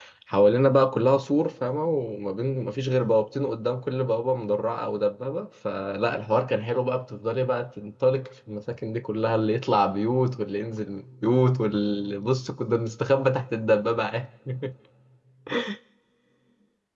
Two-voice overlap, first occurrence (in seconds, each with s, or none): none